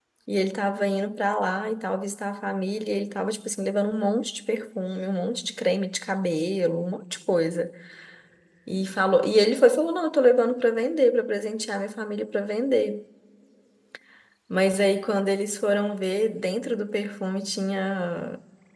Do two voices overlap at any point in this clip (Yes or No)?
No